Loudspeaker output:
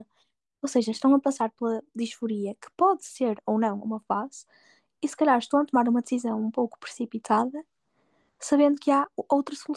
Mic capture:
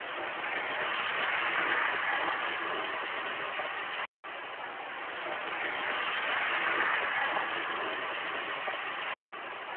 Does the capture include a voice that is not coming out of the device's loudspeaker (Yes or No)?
No